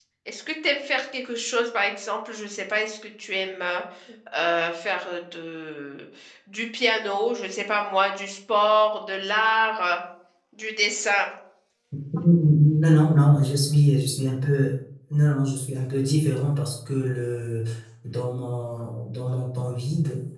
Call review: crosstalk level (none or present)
none